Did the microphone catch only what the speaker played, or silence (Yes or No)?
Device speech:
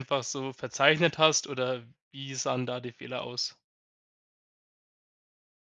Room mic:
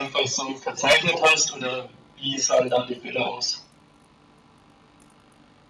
Yes